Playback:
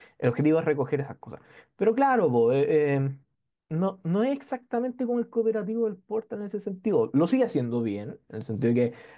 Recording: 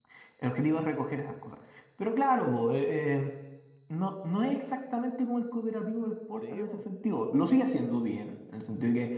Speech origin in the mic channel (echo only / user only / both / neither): both